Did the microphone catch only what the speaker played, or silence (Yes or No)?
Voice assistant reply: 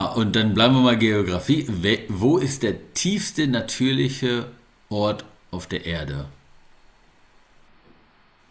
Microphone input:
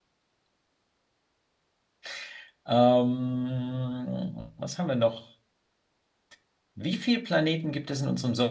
No